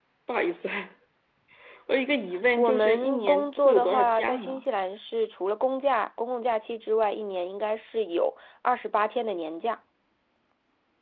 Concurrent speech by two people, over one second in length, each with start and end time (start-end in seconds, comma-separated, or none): 2.6-4.6